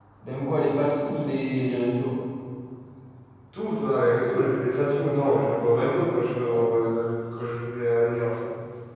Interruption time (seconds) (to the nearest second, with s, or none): none